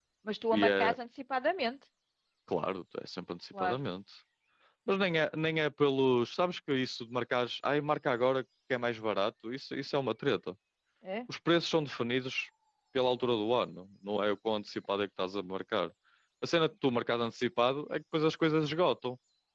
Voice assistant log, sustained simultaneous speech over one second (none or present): none